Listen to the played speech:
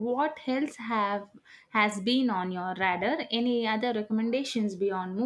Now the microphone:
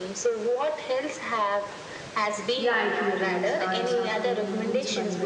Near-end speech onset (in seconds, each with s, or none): 2.6 s